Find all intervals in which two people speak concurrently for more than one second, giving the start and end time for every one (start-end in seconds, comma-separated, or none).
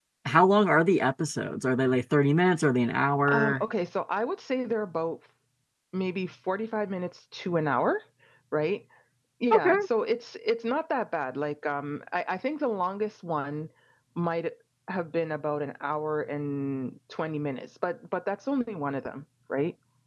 none